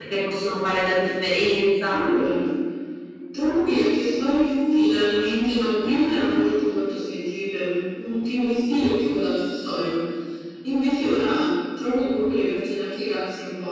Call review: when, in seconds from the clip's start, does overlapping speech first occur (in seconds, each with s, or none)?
none